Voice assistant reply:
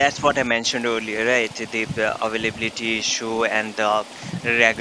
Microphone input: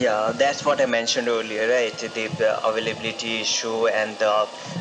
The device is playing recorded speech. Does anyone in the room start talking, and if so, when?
none

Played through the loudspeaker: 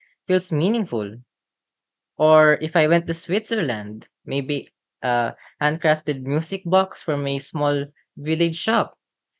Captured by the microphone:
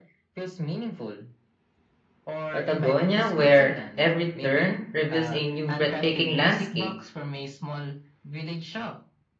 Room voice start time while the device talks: 2.5 s

